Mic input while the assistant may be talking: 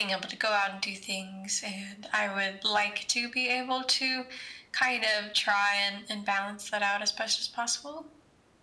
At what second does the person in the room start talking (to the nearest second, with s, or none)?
none